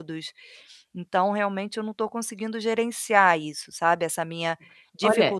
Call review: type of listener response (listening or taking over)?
taking over